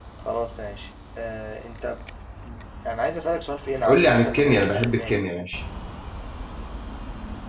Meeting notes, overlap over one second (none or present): present